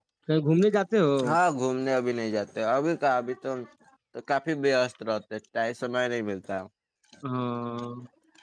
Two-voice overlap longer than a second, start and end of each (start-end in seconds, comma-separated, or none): none